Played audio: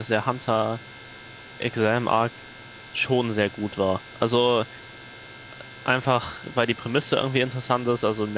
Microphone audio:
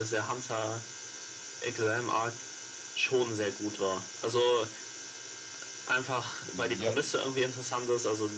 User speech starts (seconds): 6 s

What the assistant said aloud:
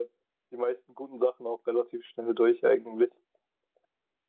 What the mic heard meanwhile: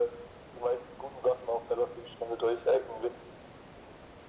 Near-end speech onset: none

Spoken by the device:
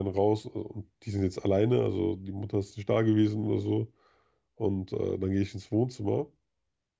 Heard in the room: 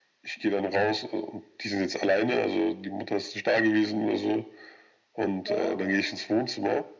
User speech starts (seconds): 5 s

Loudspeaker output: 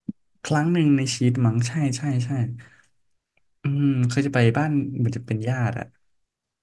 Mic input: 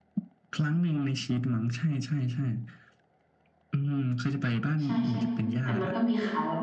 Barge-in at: 5 s

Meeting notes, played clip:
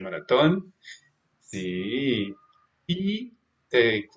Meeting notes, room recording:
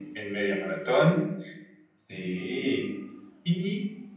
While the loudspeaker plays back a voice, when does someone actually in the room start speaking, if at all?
none

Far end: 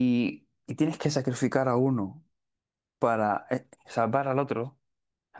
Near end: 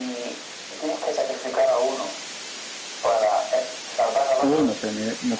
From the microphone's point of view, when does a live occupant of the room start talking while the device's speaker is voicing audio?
4 s

